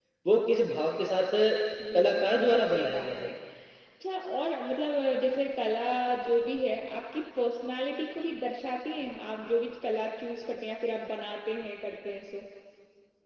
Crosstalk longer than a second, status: present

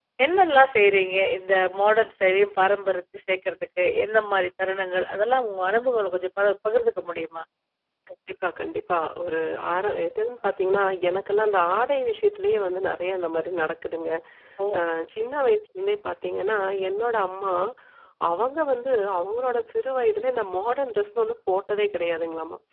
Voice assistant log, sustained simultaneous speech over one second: none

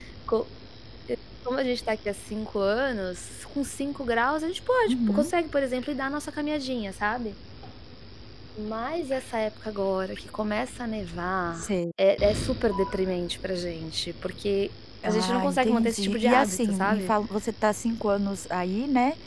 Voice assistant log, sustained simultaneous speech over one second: present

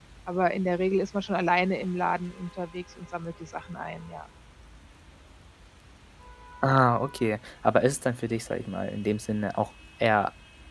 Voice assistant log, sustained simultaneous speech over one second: none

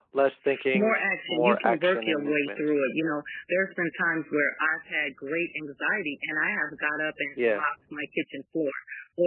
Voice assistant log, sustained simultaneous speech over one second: present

